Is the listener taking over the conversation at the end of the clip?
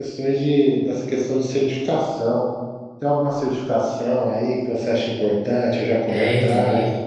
Yes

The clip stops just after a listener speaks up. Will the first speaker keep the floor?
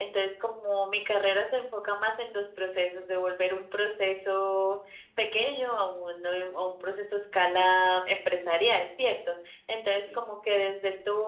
Yes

